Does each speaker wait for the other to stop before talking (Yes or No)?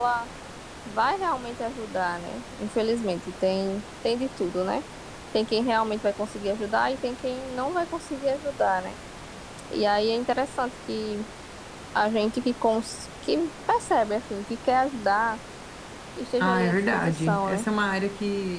No